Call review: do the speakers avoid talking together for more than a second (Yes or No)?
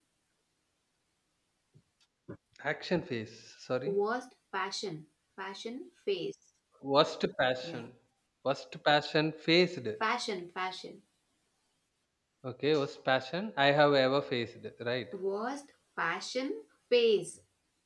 Yes